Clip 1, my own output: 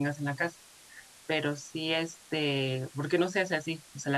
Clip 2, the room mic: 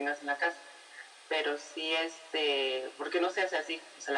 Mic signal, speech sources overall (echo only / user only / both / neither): echo only